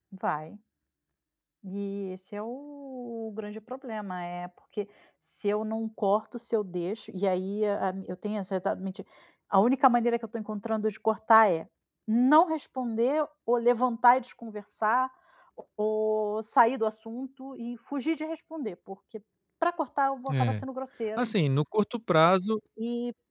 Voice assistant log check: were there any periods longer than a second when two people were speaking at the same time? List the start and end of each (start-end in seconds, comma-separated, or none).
none